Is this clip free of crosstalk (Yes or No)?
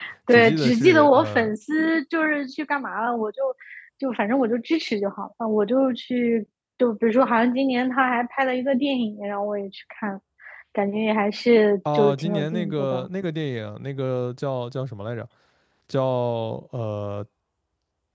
No